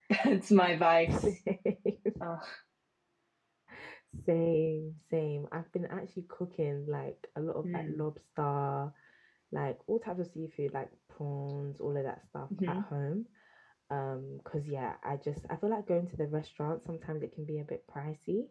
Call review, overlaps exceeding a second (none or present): none